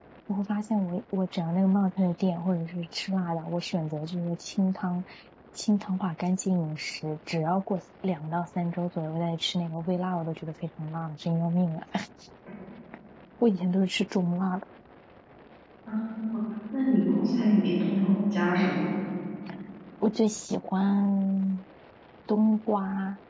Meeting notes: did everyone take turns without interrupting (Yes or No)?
Yes